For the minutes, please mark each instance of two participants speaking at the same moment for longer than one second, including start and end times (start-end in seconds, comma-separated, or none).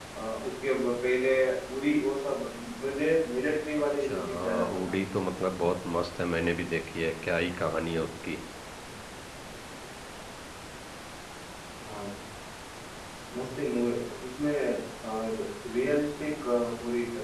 3.8-5.0